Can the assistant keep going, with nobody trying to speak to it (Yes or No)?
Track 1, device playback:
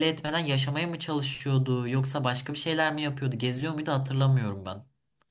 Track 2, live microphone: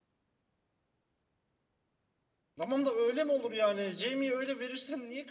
No